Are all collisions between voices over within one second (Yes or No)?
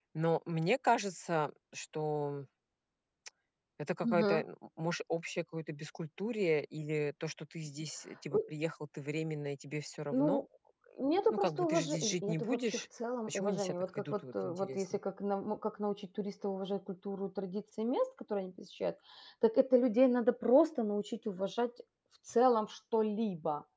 No